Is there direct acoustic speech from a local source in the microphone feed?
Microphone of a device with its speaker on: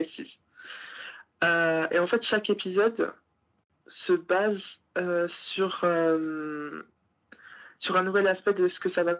No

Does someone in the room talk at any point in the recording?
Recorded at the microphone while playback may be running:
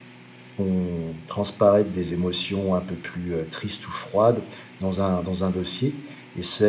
Yes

